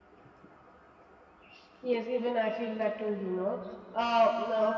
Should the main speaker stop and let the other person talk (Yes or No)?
No